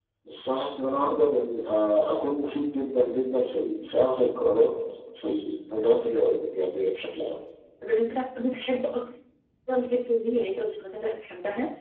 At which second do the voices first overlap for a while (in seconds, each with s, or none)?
none